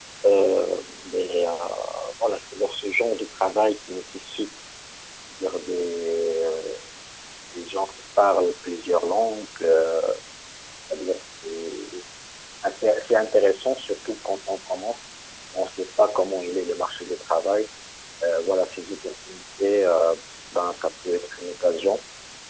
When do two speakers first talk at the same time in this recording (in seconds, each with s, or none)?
none